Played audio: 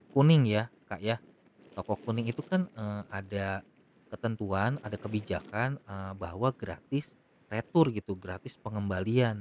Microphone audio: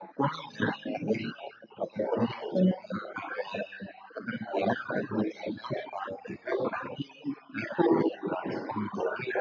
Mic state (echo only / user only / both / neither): echo only